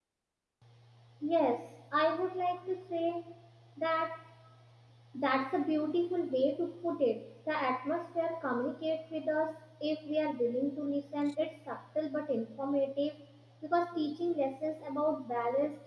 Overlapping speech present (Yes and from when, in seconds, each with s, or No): No